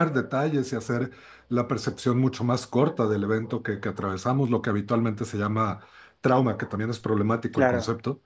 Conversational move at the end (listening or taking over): listening